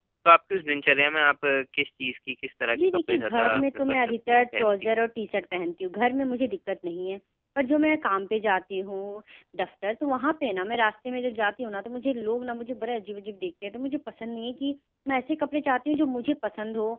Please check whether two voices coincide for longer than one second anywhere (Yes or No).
Yes